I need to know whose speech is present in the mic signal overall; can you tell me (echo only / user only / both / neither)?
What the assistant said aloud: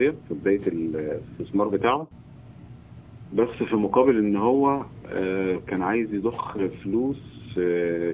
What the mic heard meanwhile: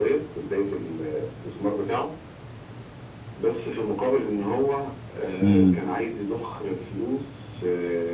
both